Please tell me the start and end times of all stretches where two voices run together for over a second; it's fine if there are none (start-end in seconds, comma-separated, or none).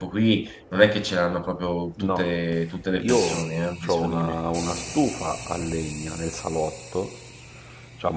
3.0-4.3